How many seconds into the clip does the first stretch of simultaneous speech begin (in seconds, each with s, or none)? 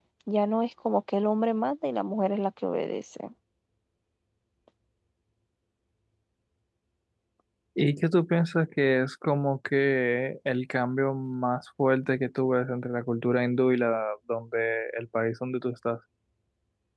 none